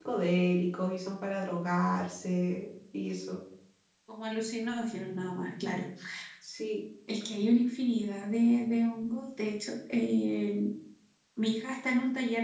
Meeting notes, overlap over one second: none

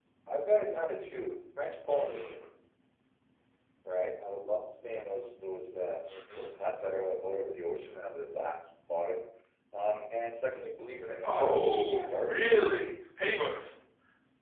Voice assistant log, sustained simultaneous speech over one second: present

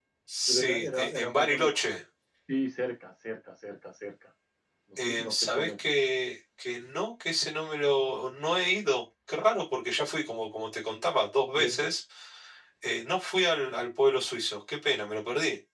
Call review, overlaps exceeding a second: present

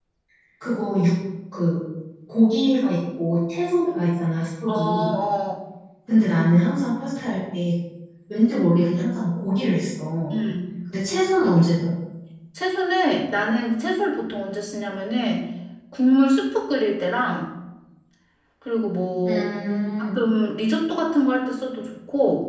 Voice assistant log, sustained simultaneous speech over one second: none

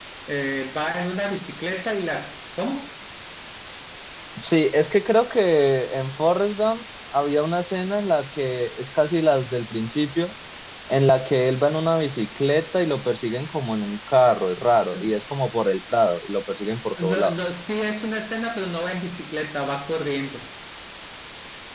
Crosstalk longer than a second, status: none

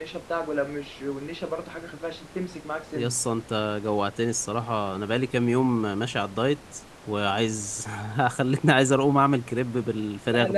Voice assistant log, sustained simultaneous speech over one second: none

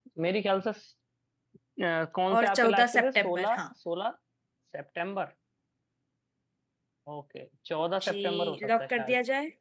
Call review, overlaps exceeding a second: present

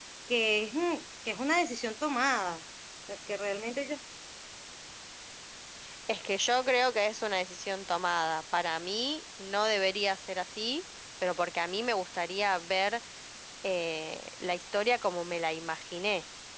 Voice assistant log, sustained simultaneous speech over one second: none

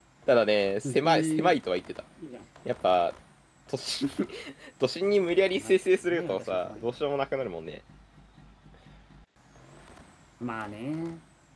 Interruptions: present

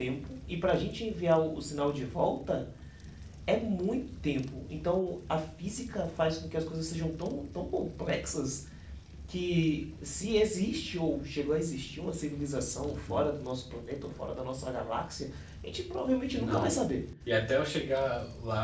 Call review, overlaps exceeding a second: none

